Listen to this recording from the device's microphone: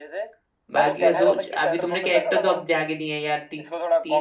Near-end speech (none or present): present